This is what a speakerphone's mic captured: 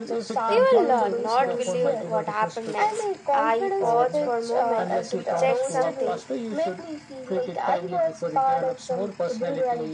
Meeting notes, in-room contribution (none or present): present